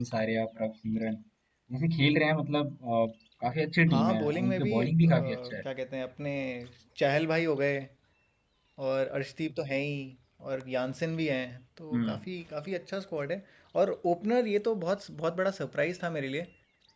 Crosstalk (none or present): present